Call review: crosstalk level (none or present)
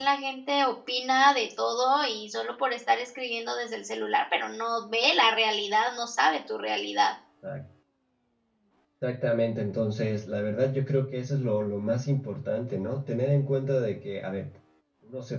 none